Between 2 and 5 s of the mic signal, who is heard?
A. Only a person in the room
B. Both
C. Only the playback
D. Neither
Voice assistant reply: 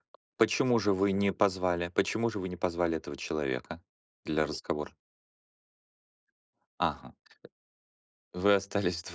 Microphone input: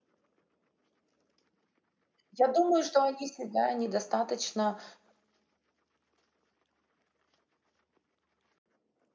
A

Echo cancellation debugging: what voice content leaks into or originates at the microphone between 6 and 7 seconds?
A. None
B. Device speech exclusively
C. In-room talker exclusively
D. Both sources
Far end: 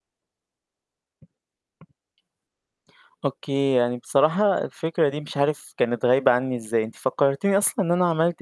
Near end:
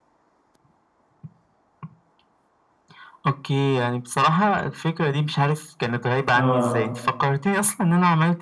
D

